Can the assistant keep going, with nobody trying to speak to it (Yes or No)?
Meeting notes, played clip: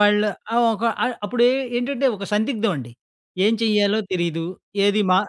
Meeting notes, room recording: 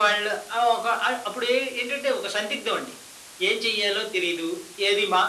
Yes